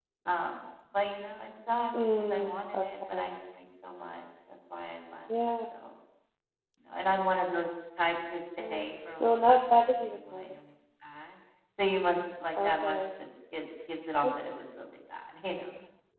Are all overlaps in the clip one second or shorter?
No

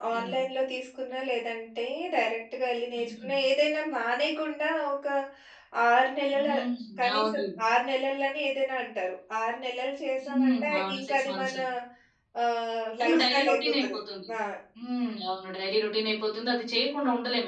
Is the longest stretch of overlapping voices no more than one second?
No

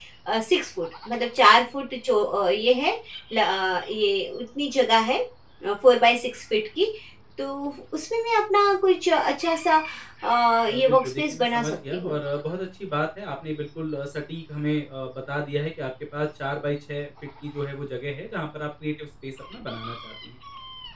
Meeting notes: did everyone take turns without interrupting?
No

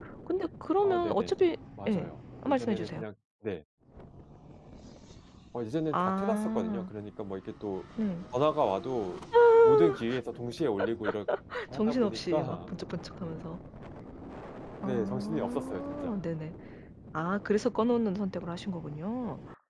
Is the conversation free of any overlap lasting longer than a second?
No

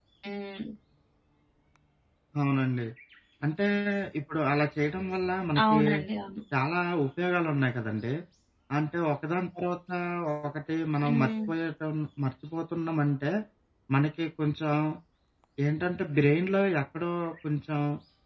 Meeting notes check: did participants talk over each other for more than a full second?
No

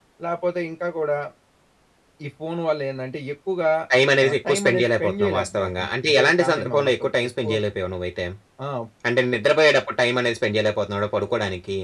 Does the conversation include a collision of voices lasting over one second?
Yes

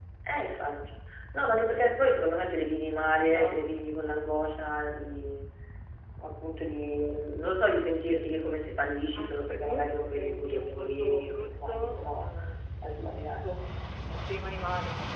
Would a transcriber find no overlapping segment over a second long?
No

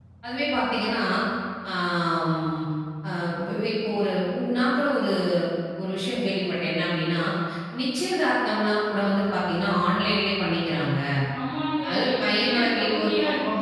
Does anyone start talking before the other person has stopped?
Yes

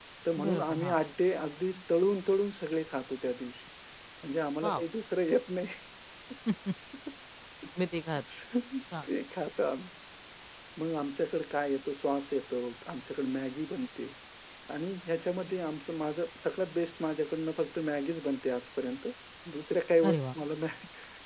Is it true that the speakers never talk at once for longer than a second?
Yes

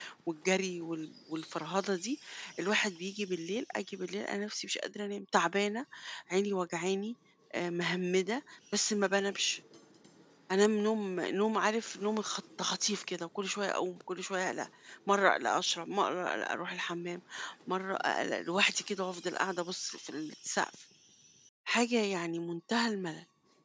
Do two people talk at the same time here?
No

